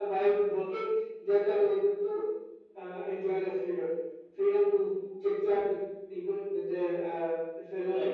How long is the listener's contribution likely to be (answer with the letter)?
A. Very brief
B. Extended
A